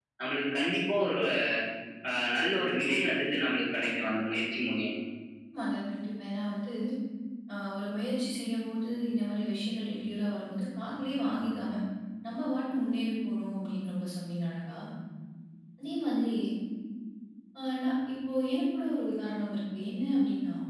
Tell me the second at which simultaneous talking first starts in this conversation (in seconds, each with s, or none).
none